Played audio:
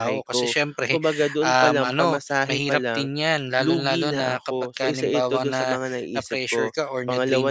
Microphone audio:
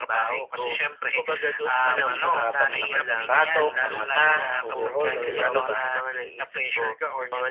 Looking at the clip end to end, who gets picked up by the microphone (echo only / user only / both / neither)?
both